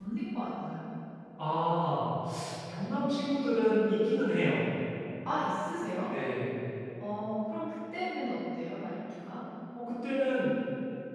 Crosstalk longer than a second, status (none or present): none